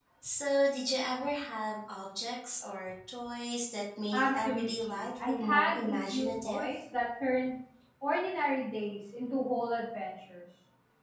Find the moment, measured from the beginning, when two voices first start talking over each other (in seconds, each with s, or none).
4.1 s